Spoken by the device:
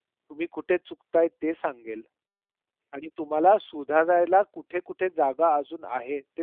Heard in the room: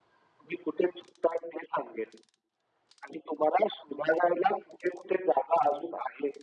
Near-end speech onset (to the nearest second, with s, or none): none